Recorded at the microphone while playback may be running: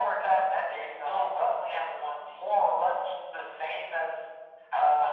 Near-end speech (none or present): none